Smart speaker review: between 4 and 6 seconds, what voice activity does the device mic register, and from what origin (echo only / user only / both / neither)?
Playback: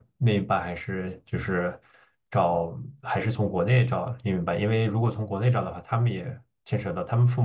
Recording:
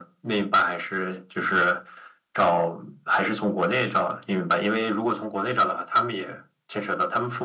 echo only